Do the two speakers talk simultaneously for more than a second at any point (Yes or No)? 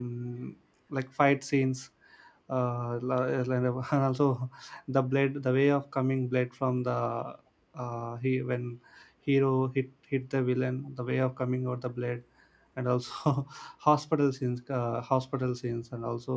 No